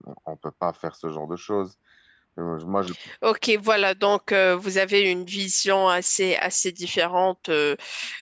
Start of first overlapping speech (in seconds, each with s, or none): none